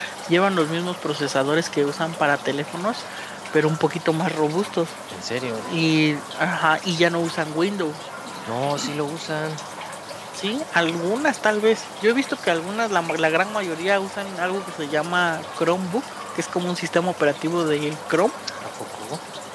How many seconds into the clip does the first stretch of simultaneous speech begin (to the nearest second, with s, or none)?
none